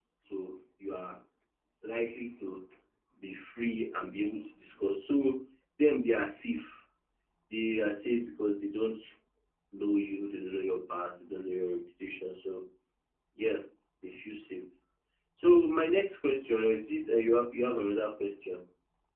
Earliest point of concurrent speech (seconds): none

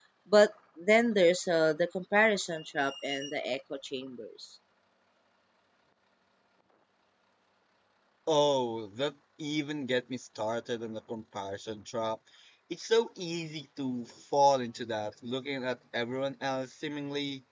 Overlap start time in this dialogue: none

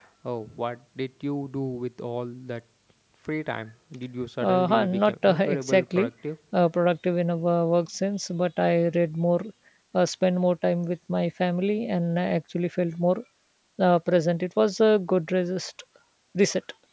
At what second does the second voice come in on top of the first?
4.4 s

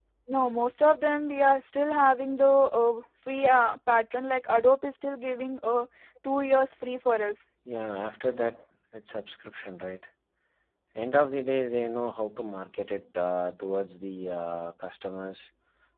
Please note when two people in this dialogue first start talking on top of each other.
none

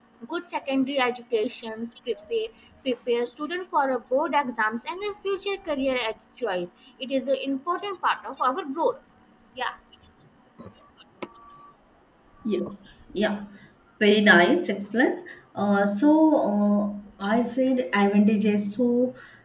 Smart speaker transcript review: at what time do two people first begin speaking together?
none

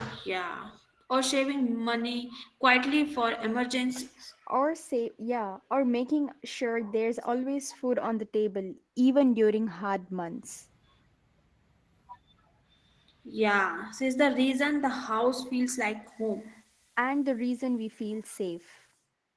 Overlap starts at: none

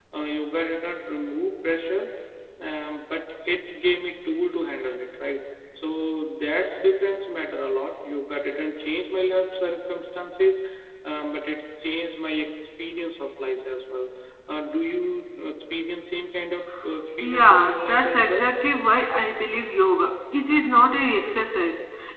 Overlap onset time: 17.2 s

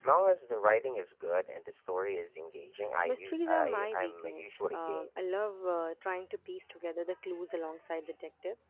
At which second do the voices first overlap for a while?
3.0 s

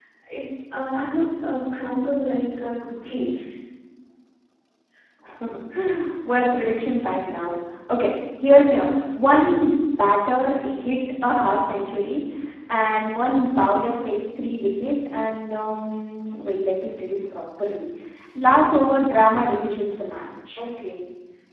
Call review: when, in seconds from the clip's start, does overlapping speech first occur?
none

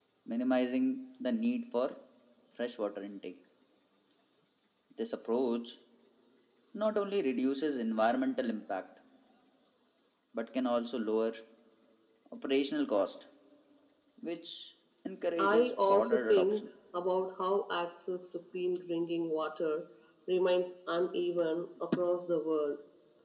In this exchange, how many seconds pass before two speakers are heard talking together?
15.4 s

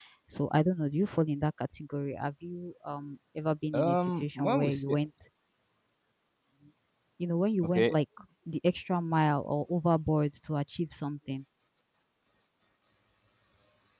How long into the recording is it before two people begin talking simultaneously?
3.7 s

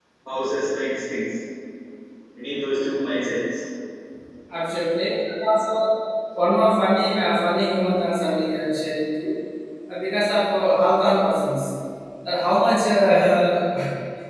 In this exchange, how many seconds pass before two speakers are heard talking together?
none

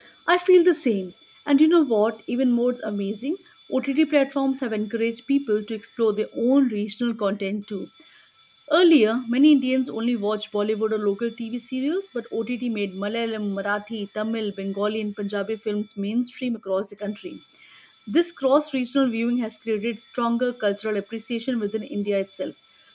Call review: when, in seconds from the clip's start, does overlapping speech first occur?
none

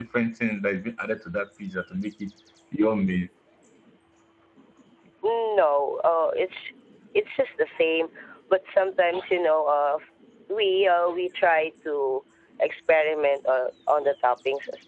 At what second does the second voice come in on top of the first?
none

